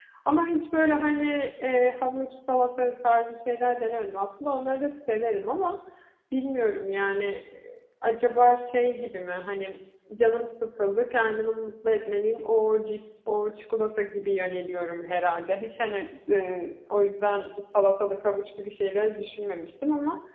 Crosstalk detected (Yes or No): No